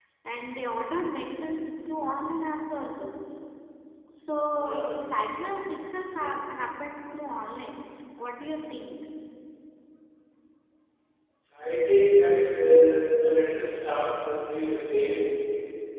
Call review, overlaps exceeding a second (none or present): none